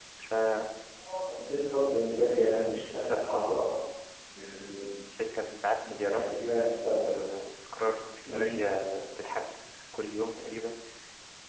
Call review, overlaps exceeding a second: none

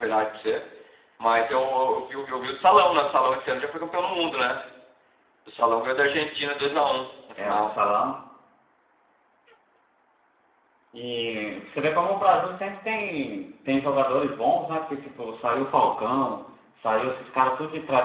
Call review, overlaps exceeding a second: none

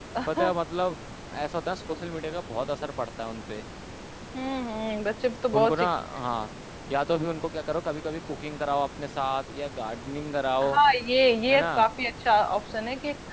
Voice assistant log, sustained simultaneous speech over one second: none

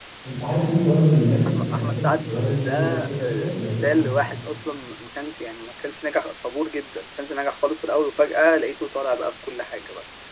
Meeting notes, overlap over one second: present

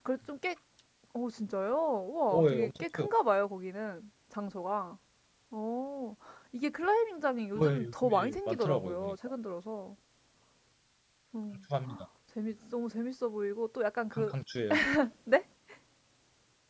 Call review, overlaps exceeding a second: present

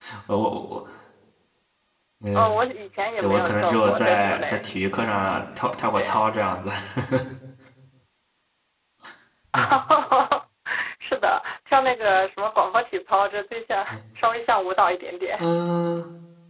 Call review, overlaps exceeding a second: present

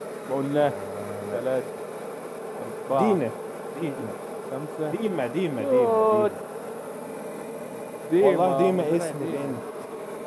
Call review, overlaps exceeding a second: present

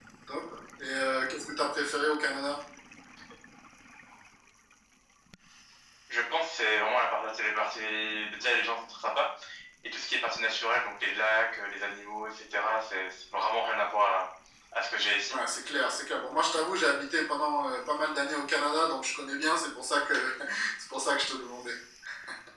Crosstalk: none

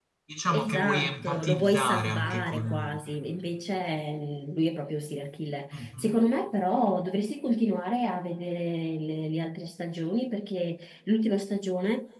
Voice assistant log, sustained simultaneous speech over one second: present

